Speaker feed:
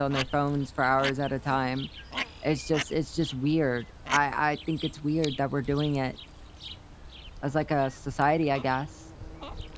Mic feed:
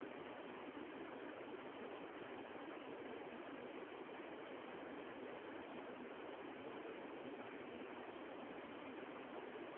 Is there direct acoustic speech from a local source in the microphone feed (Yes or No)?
No